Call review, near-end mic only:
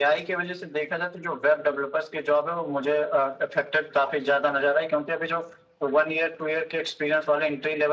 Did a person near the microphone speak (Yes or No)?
No